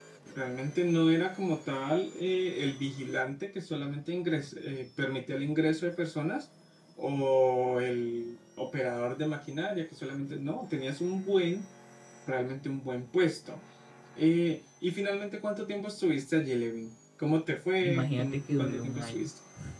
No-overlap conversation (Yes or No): No